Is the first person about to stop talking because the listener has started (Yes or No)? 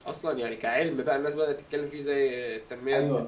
Yes